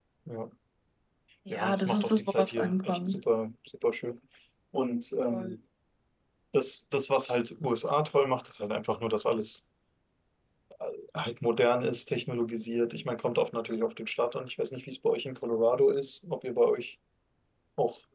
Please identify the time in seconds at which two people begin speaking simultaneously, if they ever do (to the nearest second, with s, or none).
1 s